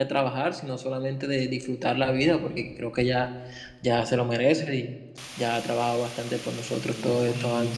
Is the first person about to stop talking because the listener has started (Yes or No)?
Yes